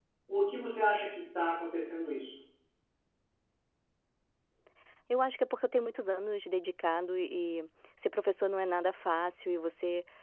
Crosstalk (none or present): none